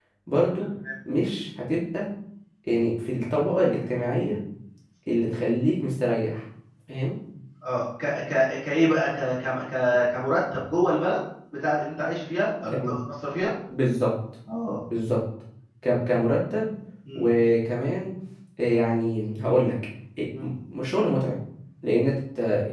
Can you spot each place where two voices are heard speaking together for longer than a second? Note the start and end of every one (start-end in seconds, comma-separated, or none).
none